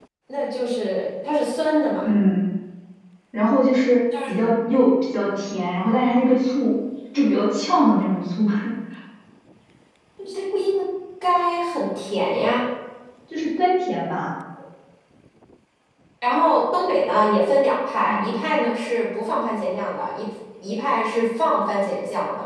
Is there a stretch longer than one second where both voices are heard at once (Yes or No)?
No